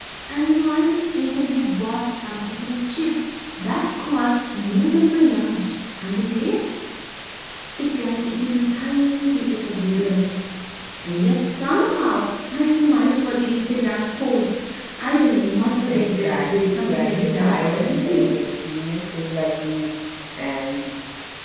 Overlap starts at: 16 s

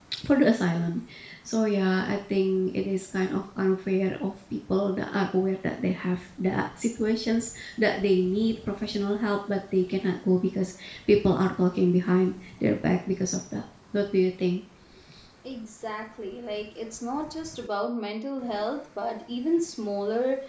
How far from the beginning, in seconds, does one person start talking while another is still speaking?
none

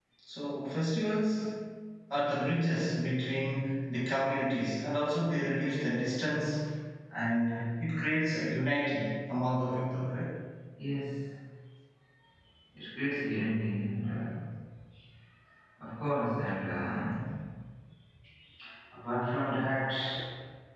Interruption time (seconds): none

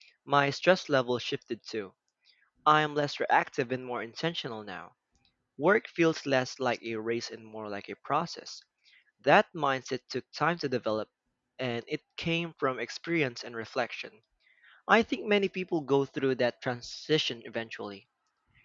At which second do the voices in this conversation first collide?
none

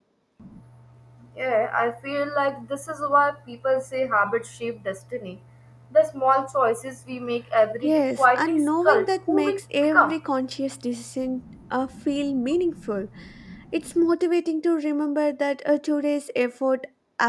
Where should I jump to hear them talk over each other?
8 s

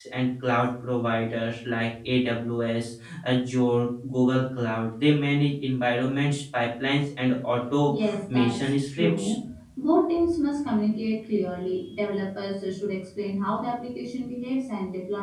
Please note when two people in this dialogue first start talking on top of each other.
8 s

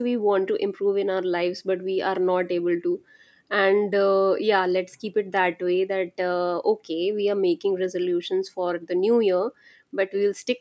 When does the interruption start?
none

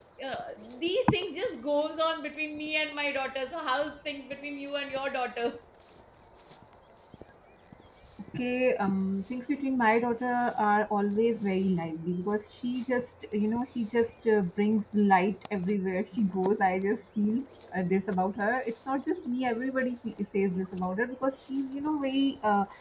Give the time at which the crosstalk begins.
none

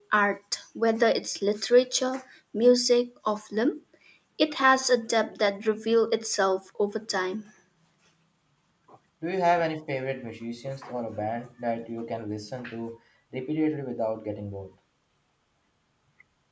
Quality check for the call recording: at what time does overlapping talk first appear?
none

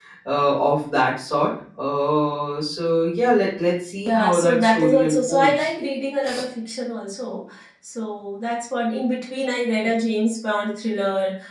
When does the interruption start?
4 s

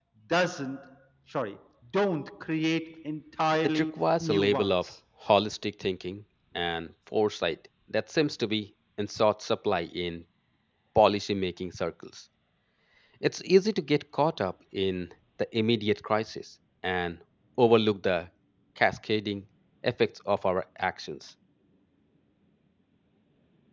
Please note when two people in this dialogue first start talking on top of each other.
4 s

